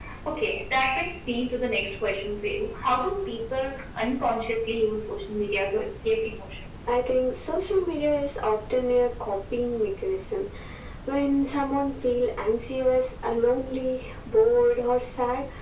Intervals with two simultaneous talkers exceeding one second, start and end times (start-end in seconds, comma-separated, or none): none